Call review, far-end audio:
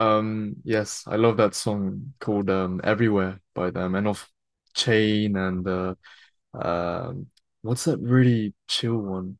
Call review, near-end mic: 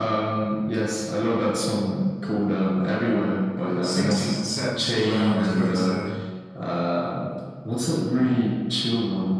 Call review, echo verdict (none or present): present